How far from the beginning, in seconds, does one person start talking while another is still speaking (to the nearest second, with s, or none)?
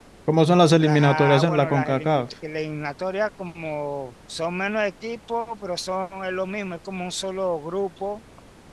1 s